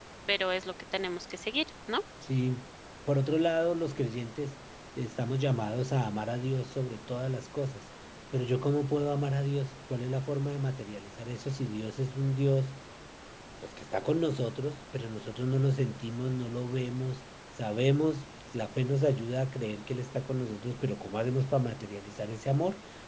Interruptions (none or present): none